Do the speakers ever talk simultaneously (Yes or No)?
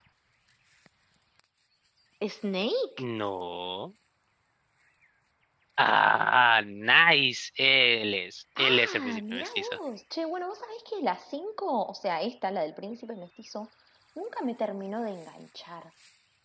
Yes